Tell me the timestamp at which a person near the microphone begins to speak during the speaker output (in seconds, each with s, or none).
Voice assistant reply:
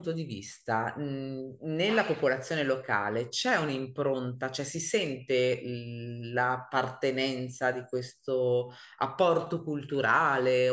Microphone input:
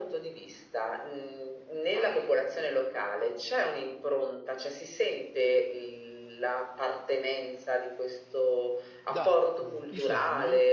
9.0 s